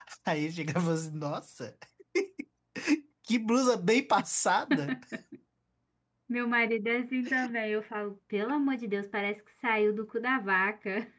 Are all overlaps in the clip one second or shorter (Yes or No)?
Yes